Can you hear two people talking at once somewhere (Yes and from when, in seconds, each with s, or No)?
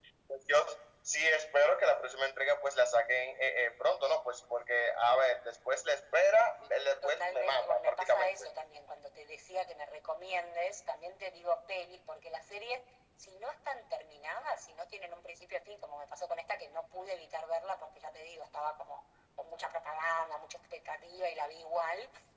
Yes, from 7.0 s